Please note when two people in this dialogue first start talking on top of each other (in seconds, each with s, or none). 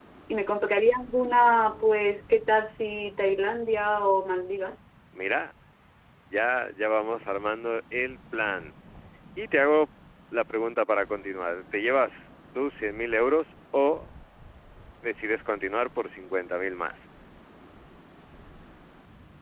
none